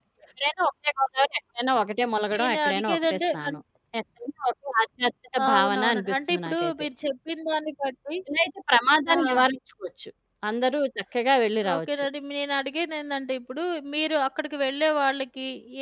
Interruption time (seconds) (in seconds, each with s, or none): 2.4 s